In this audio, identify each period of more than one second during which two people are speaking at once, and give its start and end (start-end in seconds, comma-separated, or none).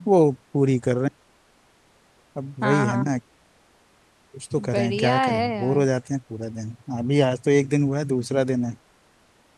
4.6-5.8